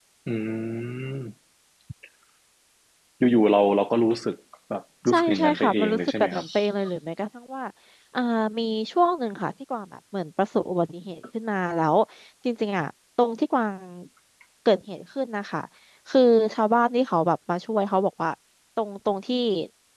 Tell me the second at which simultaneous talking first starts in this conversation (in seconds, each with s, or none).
5.1 s